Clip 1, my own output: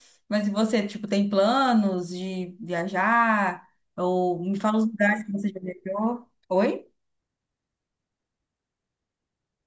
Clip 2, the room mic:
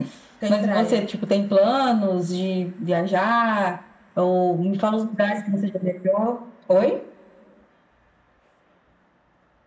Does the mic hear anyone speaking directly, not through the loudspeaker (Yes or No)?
Yes